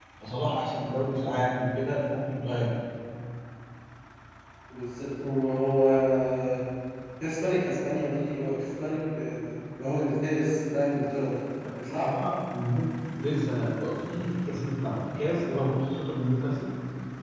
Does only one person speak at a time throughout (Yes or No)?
Yes